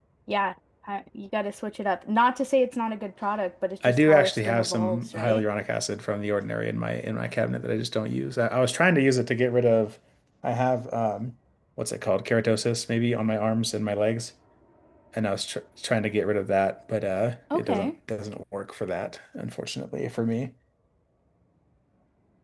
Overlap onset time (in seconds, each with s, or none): 3.8 s